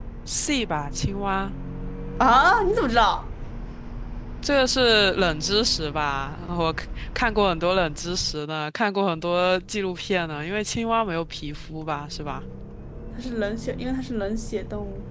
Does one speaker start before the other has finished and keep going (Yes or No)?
No